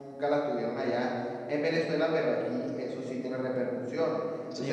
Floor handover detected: Yes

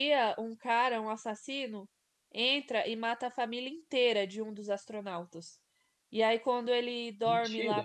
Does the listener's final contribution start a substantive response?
No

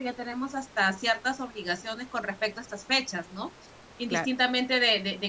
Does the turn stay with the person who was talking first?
Yes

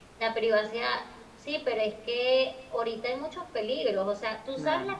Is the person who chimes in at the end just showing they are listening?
Yes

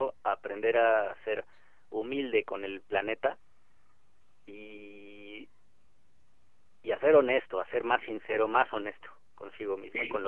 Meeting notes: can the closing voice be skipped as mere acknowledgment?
No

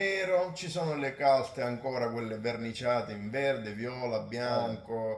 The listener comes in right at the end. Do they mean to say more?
No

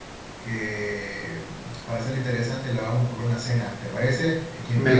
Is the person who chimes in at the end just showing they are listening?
No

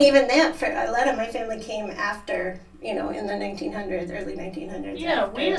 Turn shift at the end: Yes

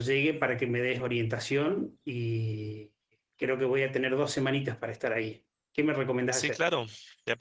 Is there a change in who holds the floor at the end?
Yes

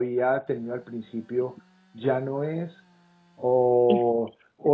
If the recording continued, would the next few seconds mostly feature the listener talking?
No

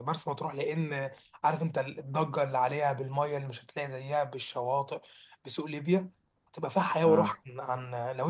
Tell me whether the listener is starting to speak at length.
No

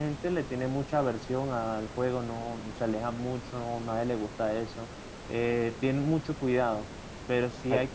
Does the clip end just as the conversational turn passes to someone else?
No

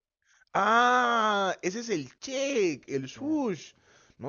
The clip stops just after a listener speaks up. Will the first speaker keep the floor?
Yes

